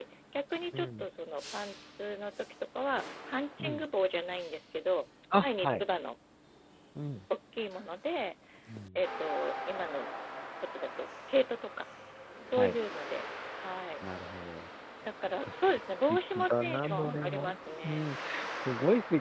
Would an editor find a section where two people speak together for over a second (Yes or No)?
Yes